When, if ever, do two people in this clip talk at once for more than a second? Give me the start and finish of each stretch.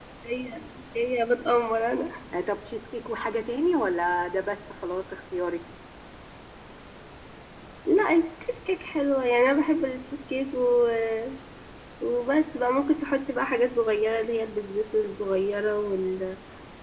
none

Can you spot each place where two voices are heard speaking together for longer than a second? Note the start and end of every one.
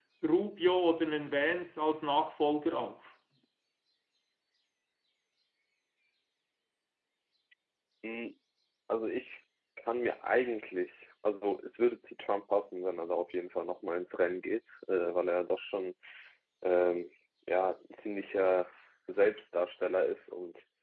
none

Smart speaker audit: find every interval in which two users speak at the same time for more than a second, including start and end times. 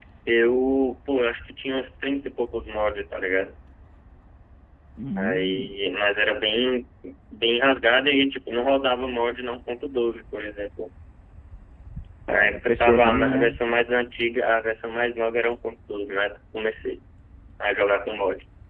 12.3-13.6

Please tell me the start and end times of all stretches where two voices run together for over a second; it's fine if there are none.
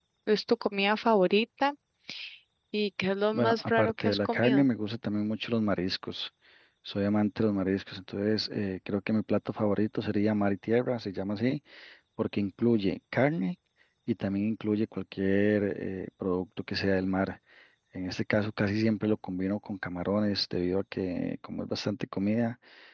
3.3-4.7

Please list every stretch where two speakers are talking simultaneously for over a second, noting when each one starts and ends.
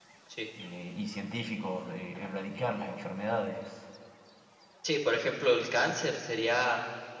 none

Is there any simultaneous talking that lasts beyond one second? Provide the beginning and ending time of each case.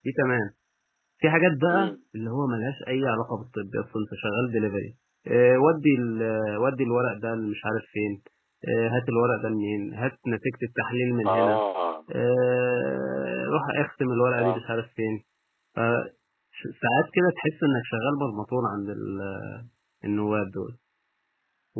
none

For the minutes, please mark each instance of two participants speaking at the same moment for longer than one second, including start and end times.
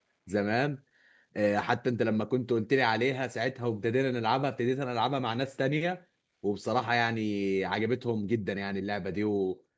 none

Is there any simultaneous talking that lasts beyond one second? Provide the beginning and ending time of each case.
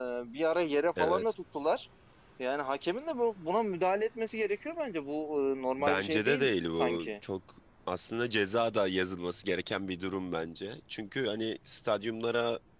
5.8-7.1

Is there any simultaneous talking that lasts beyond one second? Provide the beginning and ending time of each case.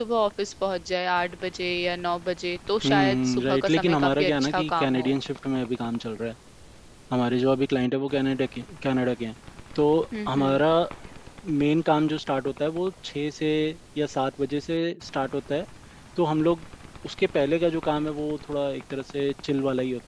2.8-5.1

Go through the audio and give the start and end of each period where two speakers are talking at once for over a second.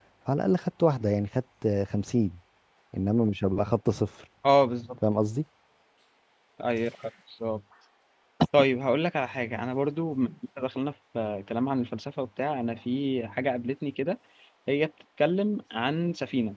none

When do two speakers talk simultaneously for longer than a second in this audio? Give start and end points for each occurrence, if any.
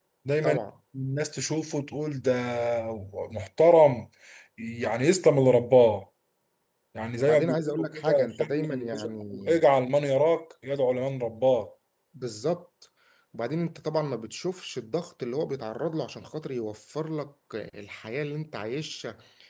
7.2-8.9

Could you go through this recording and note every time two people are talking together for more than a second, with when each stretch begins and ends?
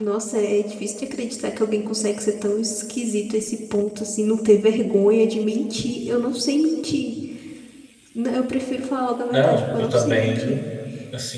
9.3-10.6

